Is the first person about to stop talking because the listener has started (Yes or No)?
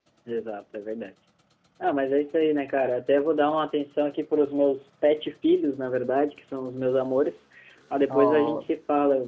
No